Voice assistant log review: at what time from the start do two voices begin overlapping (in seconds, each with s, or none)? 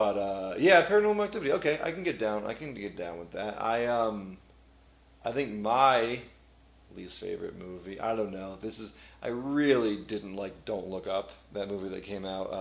none